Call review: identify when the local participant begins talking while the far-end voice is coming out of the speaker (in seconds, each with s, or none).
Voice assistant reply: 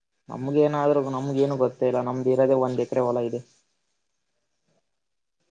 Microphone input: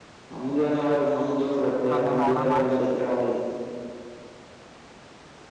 1.9 s